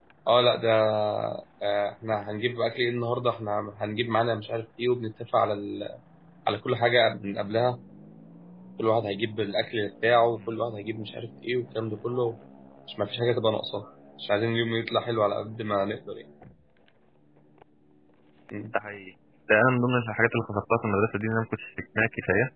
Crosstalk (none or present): none